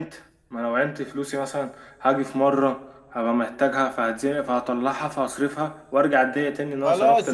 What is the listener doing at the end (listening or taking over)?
taking over